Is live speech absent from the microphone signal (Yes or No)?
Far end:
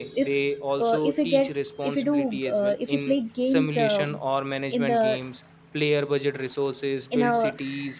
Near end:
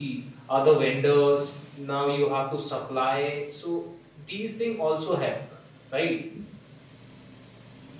No